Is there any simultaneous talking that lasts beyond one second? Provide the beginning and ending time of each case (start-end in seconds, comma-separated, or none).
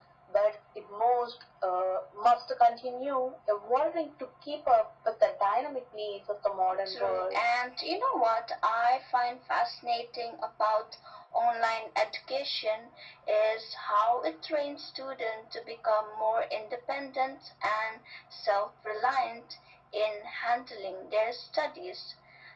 none